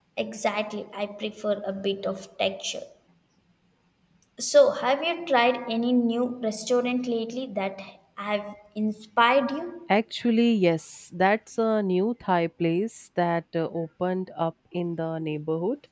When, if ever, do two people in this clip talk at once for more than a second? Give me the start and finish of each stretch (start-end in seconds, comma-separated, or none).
none